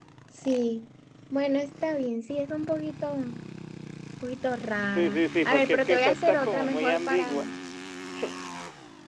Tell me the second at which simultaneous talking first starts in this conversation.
4.9 s

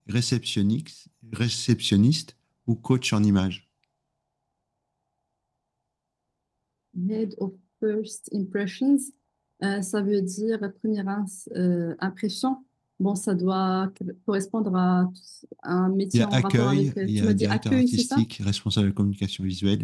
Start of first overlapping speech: 16.1 s

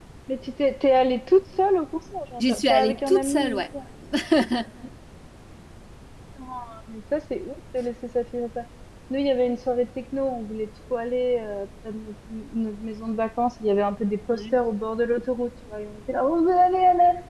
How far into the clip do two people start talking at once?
2.4 s

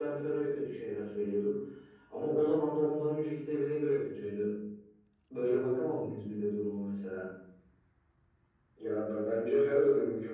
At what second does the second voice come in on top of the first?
none

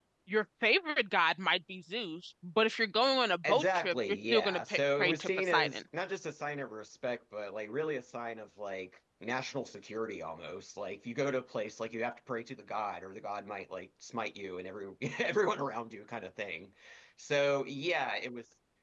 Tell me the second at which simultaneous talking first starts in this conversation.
3.4 s

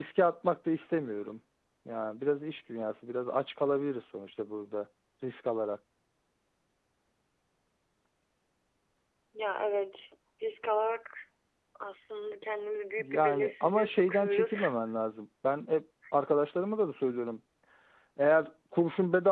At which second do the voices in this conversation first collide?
13.0 s

